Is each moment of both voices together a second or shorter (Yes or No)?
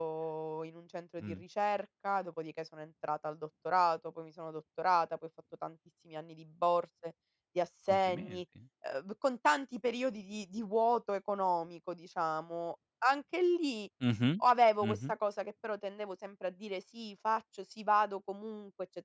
Yes